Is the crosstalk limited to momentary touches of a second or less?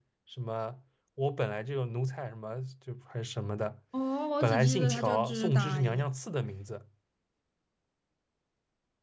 No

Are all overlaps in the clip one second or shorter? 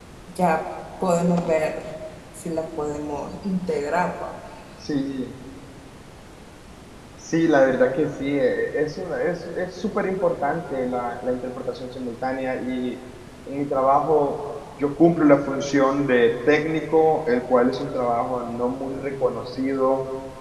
Yes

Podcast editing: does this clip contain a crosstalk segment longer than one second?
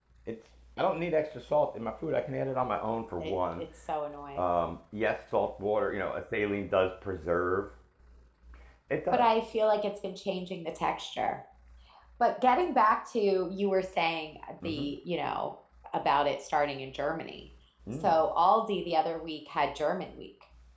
No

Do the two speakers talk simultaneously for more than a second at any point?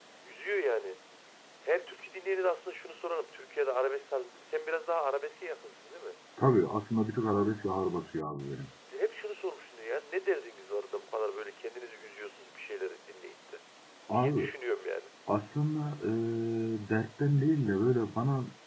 No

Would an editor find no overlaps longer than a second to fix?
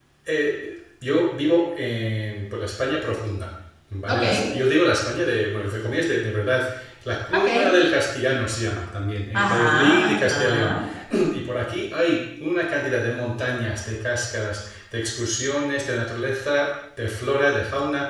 No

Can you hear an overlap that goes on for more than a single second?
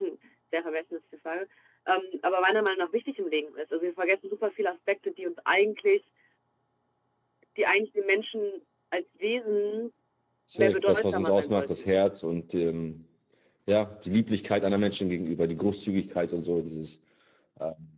Yes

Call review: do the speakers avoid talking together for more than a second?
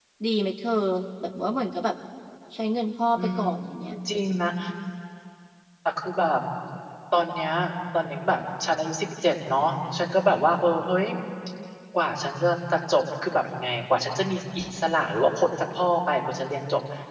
Yes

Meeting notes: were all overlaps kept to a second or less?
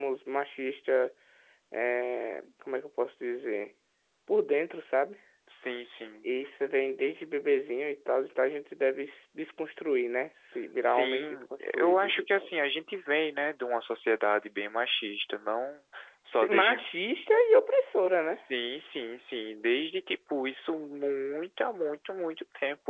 No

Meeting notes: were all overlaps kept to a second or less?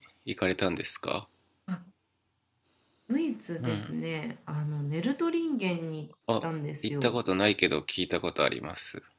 Yes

